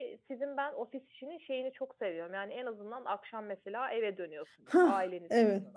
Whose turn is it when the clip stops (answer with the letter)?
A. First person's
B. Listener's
B